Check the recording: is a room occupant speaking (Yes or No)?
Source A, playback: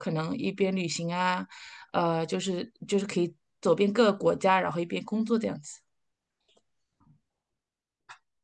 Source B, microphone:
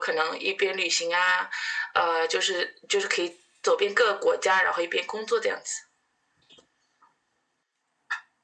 No